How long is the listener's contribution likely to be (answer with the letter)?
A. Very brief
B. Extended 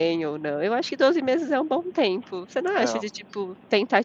A